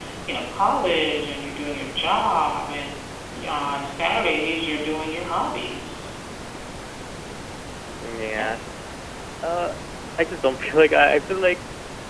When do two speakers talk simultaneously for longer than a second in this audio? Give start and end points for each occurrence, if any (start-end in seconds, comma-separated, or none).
none